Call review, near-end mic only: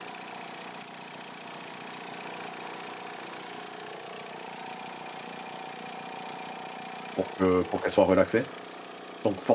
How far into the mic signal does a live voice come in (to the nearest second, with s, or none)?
7 s